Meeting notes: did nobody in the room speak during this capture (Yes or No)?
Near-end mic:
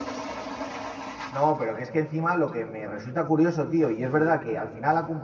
No